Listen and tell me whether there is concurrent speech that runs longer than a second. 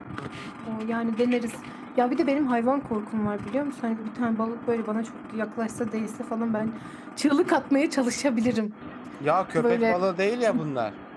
No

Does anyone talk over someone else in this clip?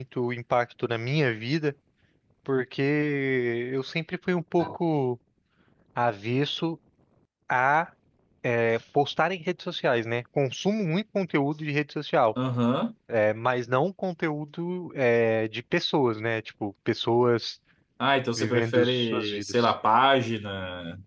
Yes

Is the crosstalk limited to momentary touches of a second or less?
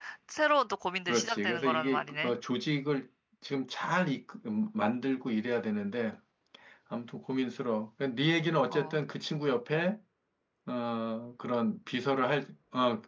No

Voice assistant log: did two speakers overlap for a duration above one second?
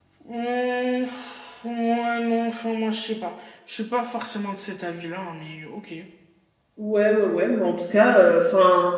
No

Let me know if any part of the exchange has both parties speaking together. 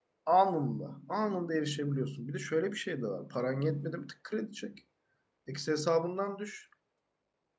No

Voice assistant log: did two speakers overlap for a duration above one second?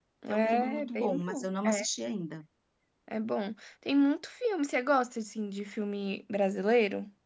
Yes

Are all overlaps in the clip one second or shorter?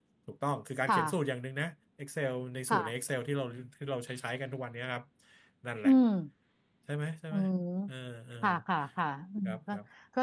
Yes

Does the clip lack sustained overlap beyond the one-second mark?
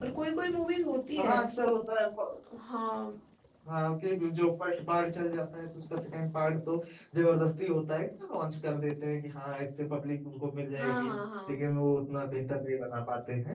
Yes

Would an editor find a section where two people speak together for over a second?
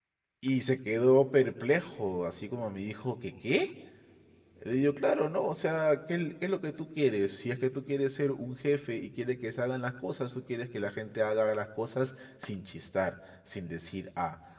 No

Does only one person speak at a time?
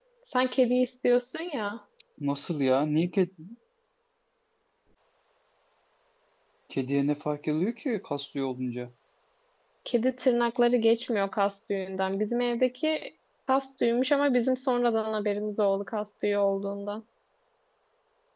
Yes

